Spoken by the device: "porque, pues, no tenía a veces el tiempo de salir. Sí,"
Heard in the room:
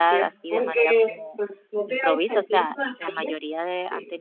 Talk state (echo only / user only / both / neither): both